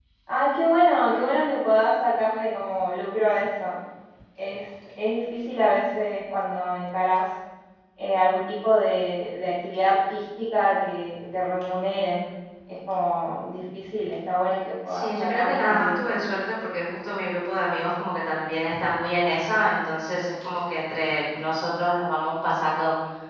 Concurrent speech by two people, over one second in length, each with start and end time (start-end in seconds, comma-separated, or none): 14.9-16.2